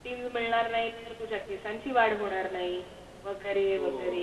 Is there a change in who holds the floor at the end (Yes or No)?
Yes